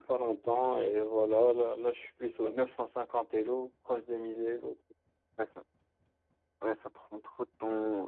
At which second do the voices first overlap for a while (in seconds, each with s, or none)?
none